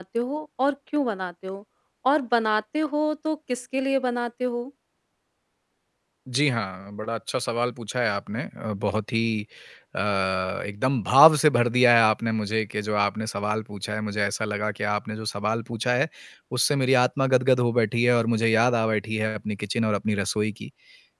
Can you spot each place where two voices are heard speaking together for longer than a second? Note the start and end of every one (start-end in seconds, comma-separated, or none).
none